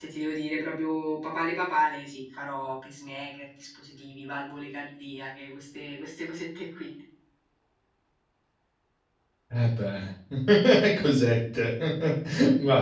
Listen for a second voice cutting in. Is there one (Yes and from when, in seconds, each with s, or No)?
No